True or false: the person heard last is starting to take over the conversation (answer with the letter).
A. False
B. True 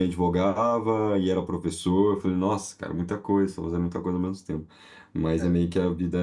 A